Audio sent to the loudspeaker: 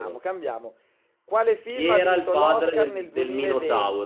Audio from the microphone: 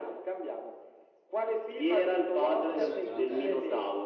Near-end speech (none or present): present